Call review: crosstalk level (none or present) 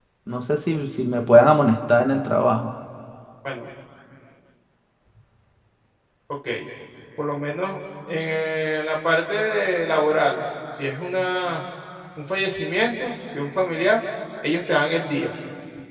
none